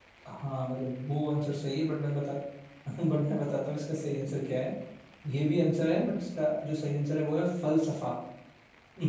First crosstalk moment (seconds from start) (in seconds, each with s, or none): none